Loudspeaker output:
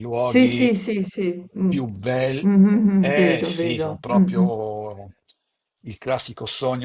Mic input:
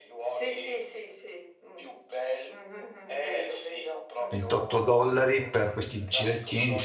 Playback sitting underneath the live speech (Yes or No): Yes